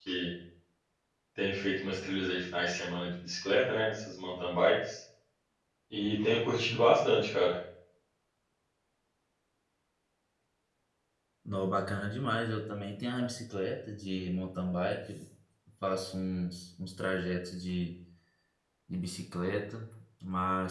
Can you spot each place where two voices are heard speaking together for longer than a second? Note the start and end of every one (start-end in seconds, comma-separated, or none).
none